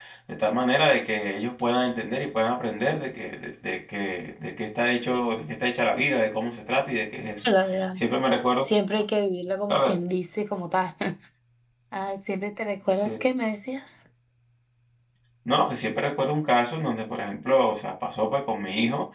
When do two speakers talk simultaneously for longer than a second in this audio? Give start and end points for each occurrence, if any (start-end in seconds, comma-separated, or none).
none